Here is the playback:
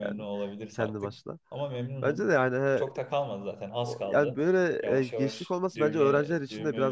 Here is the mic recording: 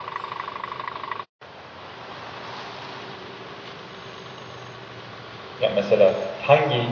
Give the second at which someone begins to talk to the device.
5.6 s

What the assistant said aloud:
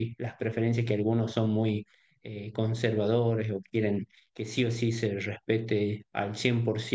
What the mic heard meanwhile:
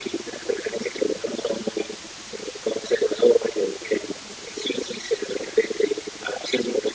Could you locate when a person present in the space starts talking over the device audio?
none

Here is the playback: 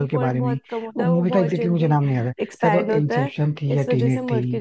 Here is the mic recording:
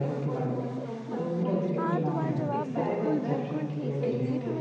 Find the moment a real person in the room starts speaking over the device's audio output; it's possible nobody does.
1.1 s

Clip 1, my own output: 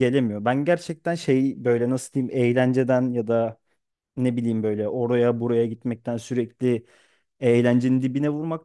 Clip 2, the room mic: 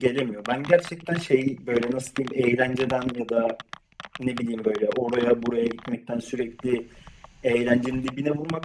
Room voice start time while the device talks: none

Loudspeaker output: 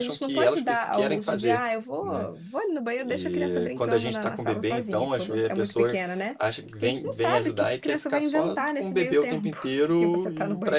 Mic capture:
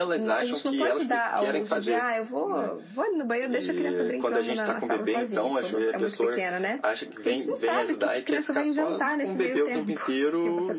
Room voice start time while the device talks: none

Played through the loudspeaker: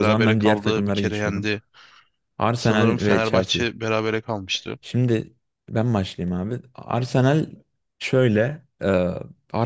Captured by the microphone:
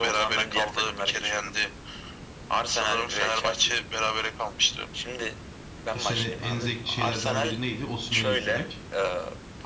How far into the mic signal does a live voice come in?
5.9 s

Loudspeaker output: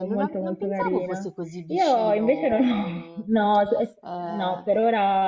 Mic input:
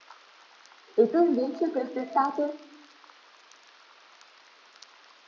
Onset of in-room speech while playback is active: 1.0 s

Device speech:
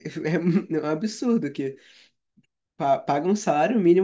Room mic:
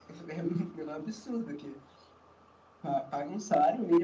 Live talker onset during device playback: none

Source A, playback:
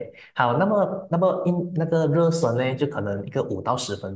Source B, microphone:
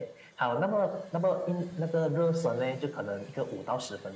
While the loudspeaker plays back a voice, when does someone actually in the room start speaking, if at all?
none

